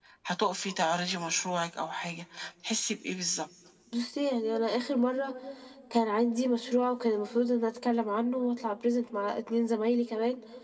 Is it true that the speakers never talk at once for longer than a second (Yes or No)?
Yes